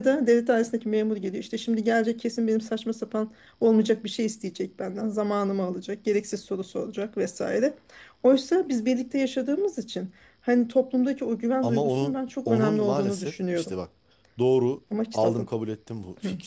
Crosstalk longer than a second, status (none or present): present